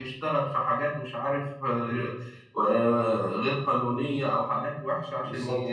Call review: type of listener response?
listening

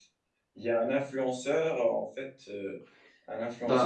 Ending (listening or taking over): listening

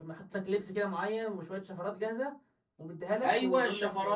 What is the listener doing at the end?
taking over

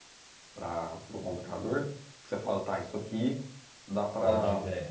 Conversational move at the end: listening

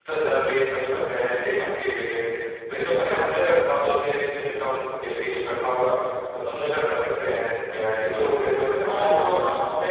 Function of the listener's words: taking over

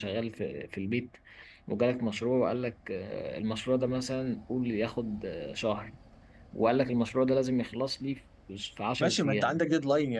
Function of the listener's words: taking over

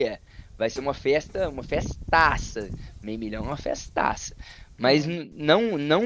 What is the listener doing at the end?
listening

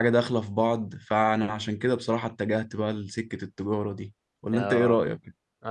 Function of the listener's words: taking over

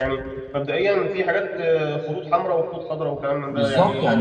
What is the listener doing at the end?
taking over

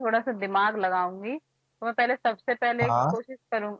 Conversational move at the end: listening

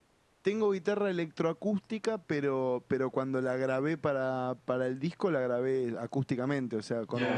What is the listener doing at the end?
taking over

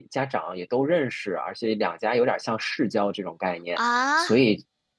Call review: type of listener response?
listening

